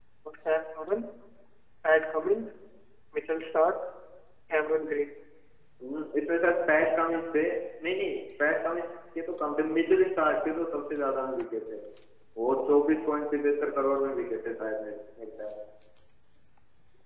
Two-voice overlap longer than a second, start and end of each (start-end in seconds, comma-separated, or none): none